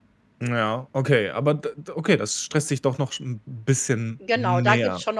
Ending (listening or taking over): taking over